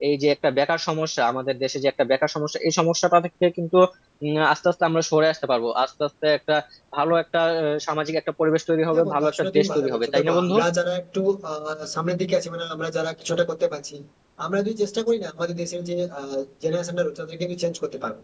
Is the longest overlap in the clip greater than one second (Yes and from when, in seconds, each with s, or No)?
Yes, from 8.9 s